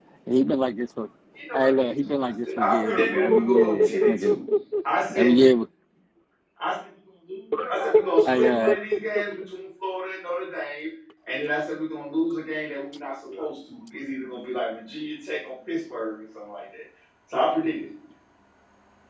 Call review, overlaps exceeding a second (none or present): present